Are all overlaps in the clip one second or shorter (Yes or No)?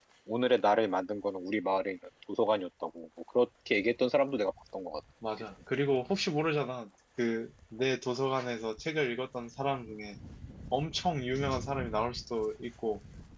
Yes